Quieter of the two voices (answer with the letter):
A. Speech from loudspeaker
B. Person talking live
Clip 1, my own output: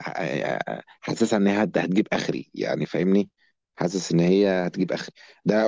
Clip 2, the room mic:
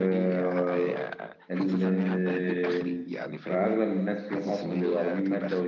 A